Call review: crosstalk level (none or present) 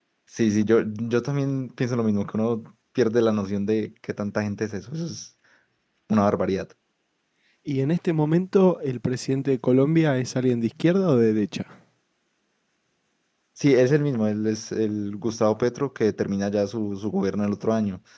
none